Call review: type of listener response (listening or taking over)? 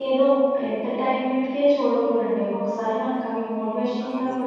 taking over